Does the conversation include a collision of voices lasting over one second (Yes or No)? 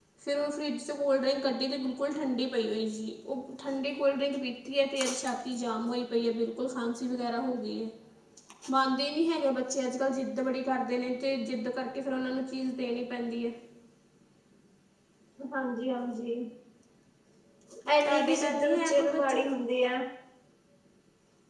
Yes